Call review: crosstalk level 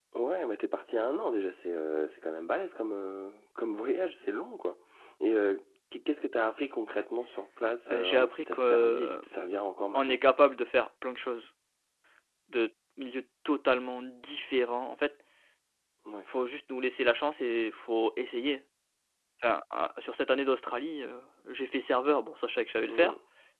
present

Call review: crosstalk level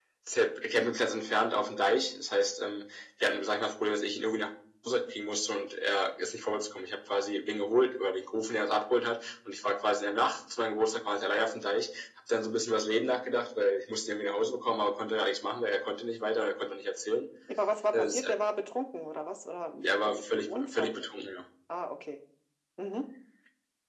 present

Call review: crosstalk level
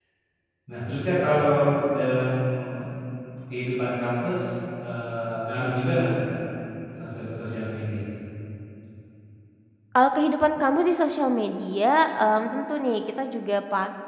none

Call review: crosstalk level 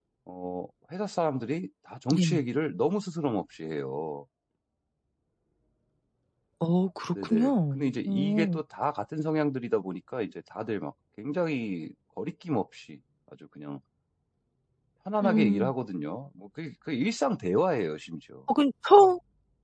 present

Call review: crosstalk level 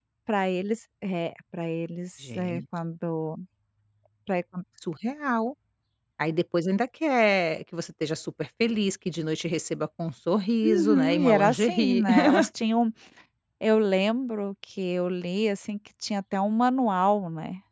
present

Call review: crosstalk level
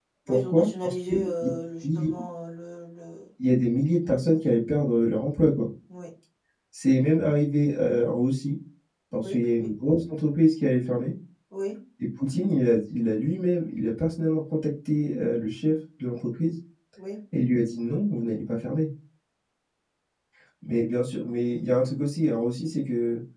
present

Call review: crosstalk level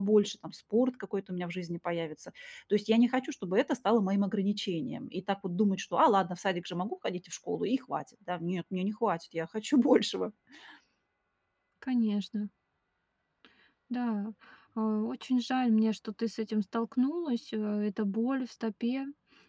none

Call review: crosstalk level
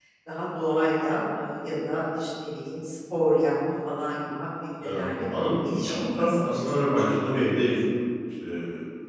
present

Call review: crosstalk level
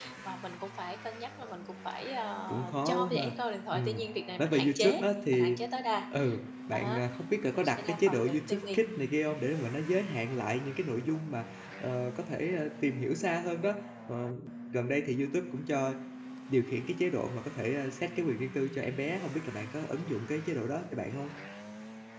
present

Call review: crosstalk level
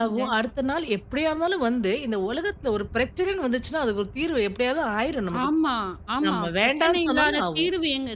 present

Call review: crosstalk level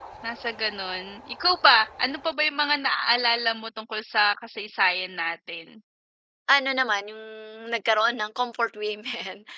none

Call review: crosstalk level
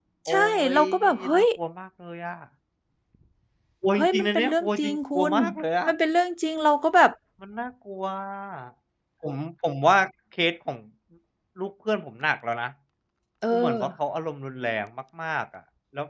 present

